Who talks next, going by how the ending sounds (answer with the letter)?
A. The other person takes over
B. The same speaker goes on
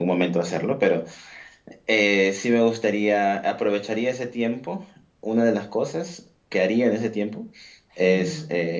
B